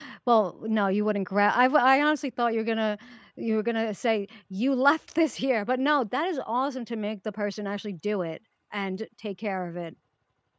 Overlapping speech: No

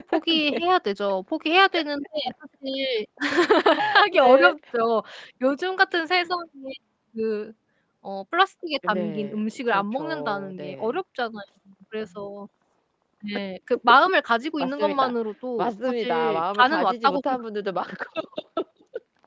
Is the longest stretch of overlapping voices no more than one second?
No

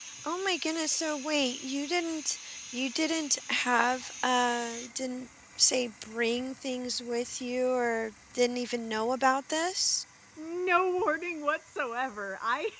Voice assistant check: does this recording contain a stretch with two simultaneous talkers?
No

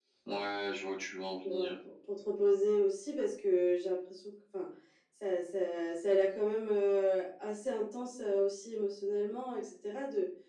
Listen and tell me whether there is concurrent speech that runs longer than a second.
No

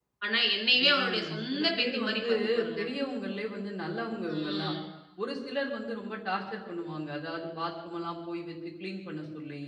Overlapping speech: Yes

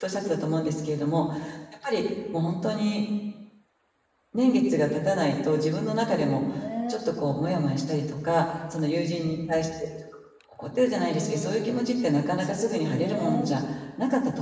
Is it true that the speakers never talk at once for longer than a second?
No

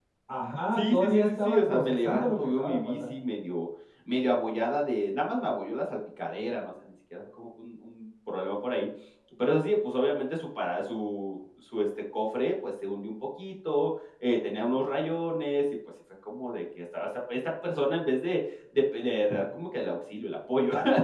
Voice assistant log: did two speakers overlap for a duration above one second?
Yes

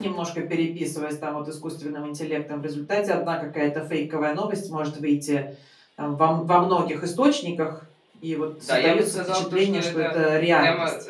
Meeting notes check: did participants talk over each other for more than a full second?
Yes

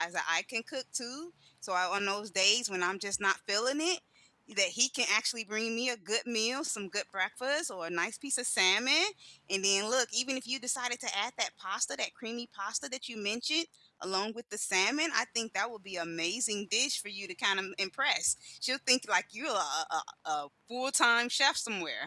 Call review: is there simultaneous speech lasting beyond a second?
No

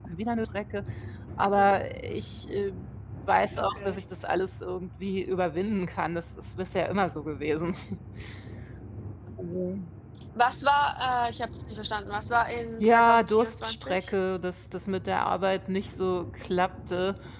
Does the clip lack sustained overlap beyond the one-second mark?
No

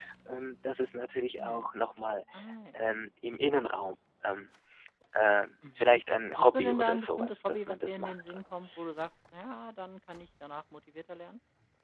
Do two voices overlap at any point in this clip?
Yes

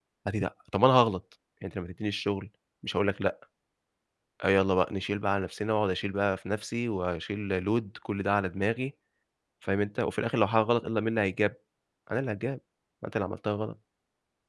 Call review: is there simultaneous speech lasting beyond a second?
No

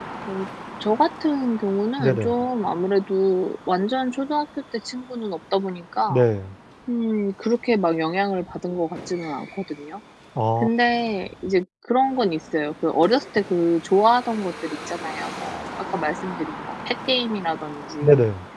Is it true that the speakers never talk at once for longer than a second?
Yes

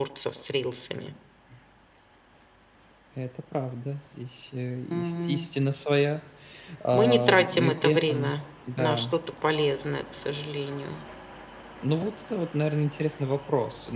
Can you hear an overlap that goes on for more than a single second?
Yes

